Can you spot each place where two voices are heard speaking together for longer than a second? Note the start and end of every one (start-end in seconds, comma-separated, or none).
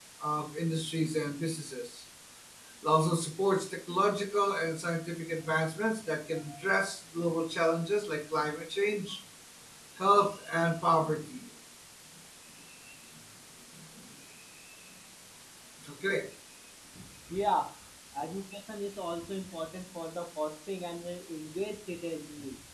none